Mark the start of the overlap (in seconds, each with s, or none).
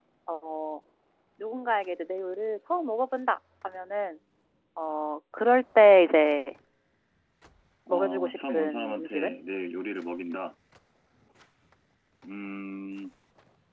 7.9 s